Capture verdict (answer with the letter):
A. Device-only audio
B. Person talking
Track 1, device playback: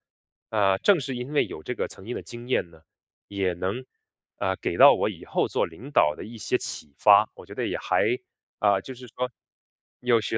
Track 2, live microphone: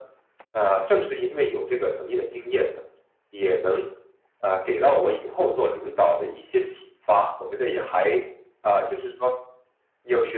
A